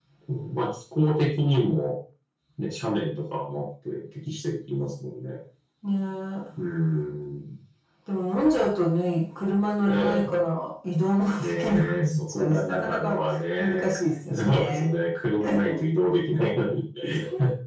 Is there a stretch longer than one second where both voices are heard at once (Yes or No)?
Yes